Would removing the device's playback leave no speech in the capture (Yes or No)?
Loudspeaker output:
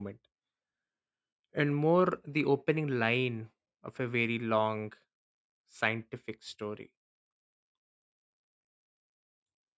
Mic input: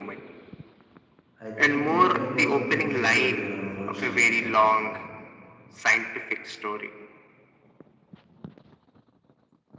No